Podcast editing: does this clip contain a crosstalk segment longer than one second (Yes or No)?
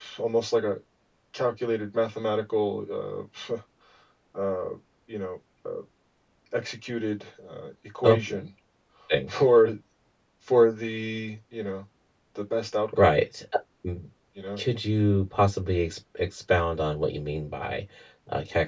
No